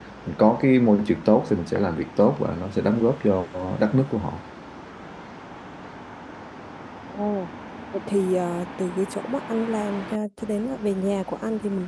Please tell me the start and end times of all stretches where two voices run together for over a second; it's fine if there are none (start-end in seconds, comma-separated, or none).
none